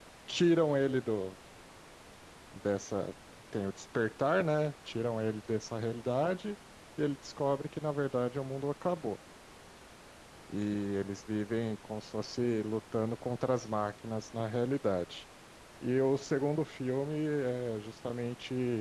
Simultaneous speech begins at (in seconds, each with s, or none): none